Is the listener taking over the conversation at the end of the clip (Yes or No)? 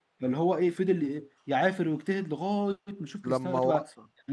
No